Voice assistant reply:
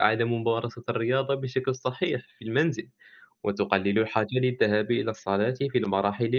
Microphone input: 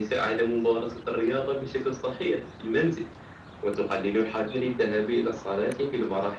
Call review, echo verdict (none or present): present